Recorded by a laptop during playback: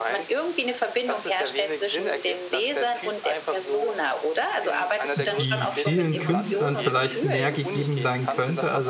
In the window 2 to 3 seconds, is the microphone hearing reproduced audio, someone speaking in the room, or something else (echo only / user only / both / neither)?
echo only